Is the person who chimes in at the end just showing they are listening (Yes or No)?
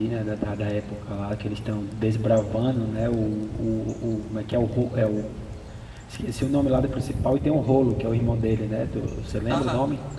No